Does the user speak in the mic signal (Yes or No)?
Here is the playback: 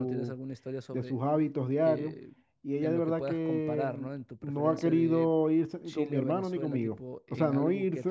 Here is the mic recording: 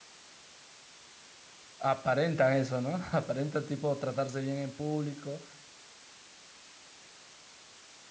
Yes